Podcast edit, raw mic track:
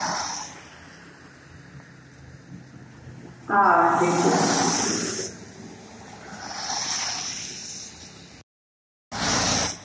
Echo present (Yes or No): No